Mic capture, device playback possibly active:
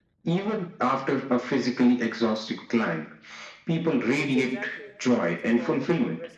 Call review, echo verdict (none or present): present